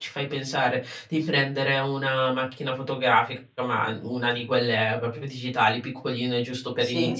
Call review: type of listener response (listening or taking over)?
listening